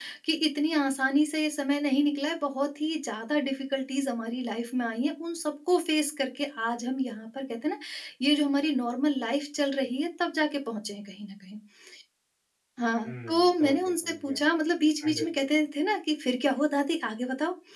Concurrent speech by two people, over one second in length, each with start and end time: 13.1-14.4

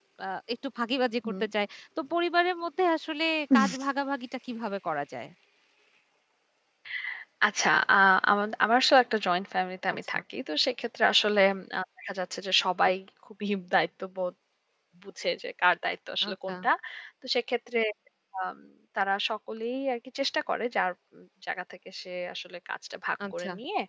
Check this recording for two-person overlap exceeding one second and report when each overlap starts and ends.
none

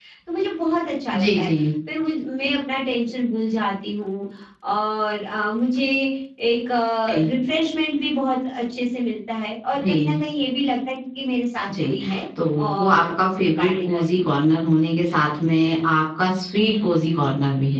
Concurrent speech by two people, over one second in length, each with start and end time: 12.6-14.2

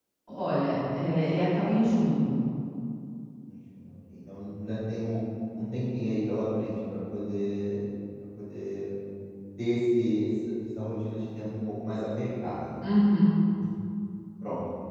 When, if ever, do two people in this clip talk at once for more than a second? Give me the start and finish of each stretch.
none

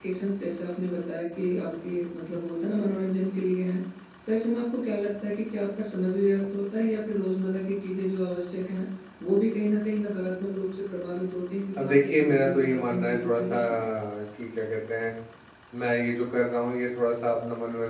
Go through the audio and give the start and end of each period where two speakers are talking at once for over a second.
11.8-13.6

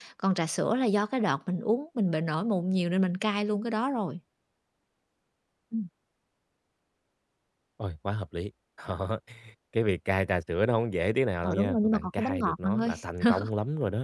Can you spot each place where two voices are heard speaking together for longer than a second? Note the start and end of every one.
11.4-12.9

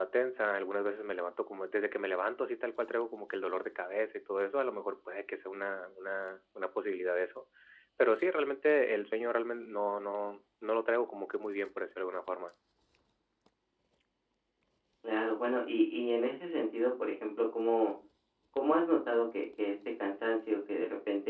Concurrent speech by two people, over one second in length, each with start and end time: none

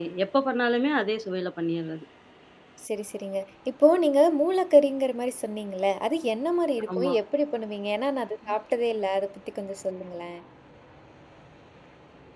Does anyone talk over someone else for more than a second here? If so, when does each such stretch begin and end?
none

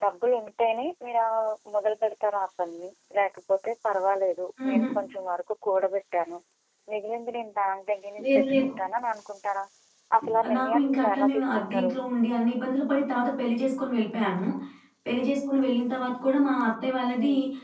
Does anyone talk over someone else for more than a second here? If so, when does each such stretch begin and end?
10.6-11.9

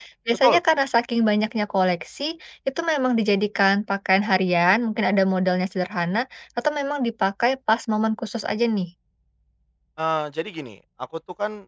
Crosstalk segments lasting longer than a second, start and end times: none

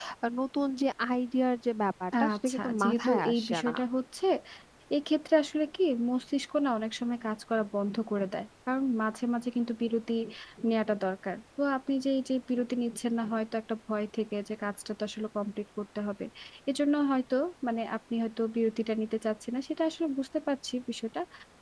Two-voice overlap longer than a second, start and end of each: 2.3-3.8

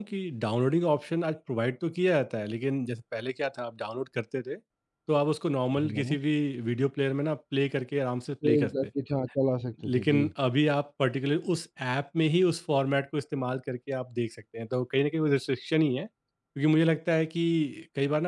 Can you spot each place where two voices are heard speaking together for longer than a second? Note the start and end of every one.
none

